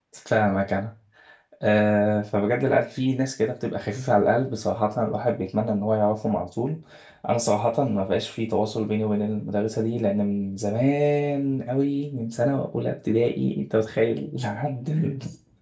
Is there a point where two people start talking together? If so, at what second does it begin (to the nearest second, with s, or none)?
none